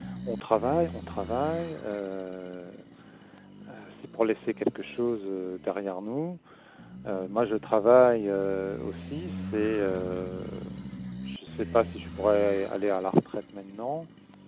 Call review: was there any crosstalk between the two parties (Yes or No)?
No